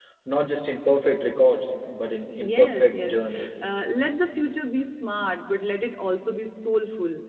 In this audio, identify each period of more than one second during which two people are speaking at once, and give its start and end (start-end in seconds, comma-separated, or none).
2.4-3.6